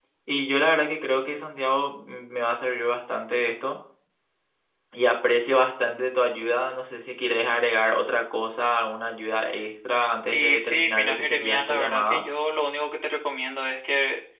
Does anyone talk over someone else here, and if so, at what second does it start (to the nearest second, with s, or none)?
10 s